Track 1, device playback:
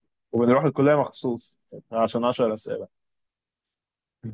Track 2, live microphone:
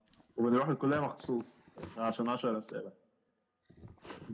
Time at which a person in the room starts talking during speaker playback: none

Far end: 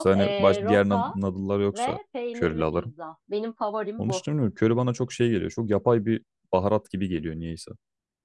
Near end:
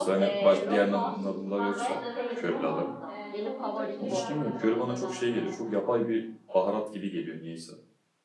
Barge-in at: 0.5 s

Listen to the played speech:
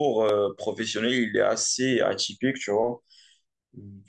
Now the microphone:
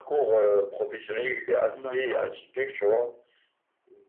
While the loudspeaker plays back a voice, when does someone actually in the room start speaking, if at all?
1.7 s

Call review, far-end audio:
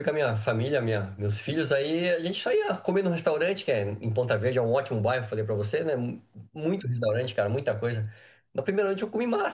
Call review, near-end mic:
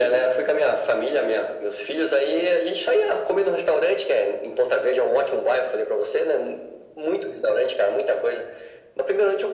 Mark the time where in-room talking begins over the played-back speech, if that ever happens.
none

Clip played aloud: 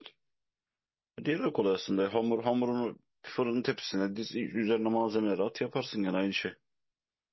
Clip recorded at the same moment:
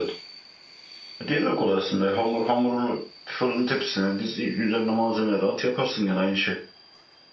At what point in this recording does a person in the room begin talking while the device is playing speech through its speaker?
none

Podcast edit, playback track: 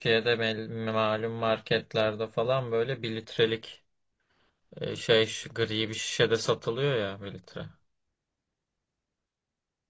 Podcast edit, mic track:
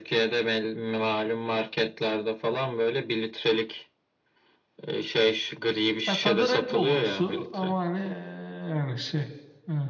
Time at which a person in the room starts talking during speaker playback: 6.1 s

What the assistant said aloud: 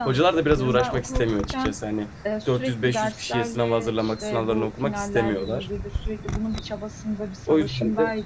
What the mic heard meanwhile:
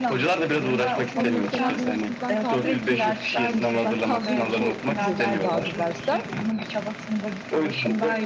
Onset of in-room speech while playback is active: 1.1 s

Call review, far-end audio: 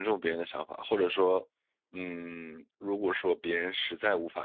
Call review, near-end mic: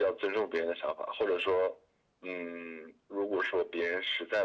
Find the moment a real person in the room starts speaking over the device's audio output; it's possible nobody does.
none

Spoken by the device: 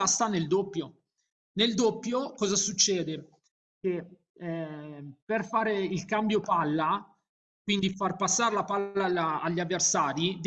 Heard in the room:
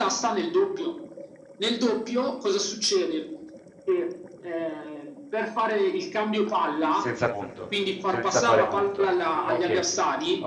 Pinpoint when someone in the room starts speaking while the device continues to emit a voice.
6.9 s

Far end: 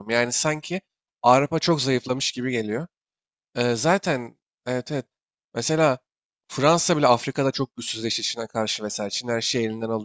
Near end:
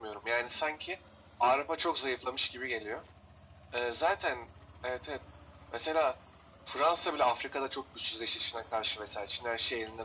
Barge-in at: none

